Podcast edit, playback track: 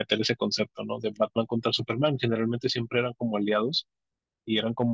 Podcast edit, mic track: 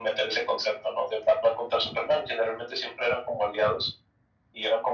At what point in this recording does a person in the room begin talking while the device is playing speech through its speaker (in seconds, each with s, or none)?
none